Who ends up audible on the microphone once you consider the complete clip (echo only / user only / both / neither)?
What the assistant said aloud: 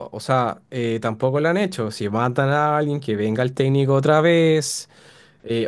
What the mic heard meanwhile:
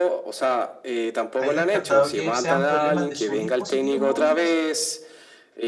both